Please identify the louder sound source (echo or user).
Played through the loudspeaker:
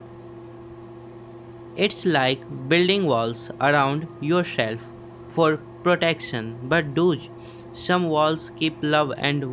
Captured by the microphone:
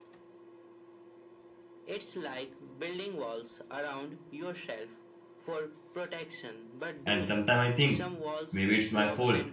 user